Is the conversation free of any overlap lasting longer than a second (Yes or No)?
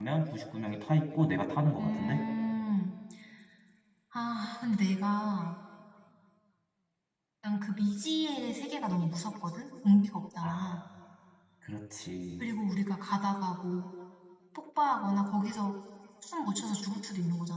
Yes